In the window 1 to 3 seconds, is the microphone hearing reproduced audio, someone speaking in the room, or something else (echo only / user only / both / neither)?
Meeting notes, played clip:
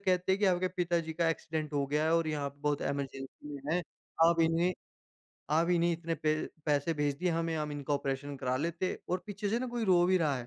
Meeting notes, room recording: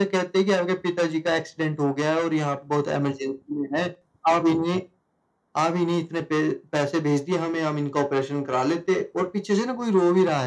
echo only